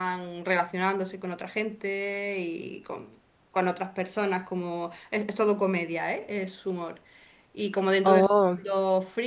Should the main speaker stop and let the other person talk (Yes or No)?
No